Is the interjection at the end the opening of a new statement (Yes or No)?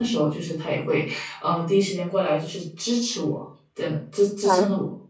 Yes